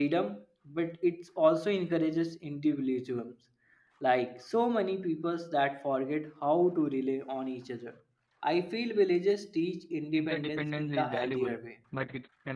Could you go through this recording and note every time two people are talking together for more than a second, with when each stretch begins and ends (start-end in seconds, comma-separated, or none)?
10.2-11.5